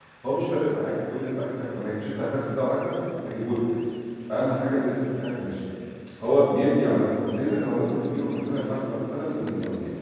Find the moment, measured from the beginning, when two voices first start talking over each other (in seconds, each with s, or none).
none